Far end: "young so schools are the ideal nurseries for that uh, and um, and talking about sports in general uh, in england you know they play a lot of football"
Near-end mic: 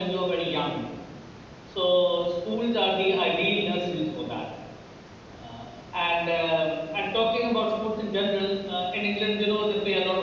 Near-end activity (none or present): none